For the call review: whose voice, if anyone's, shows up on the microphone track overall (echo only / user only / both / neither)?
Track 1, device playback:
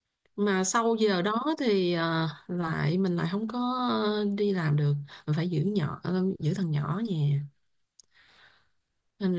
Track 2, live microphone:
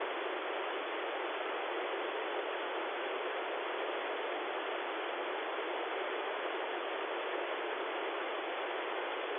neither